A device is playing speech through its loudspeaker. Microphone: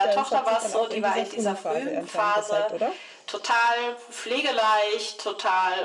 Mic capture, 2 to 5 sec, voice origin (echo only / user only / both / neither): both